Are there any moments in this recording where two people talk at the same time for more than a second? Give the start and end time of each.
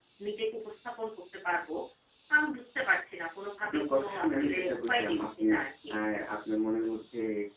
3.6-5.5

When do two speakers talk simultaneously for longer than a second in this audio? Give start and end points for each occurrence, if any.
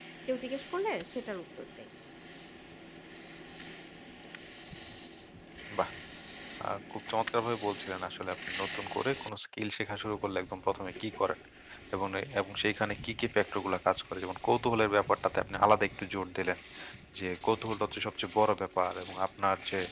none

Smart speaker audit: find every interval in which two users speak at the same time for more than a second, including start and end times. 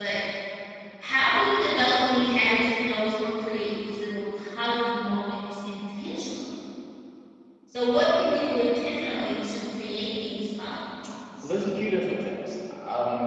none

